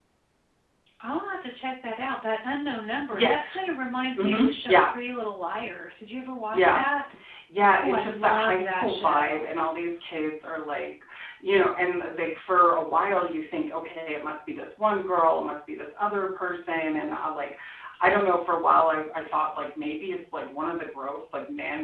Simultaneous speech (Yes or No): Yes